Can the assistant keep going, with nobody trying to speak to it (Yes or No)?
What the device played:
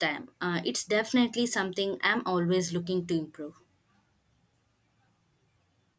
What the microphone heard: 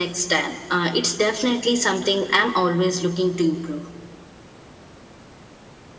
Yes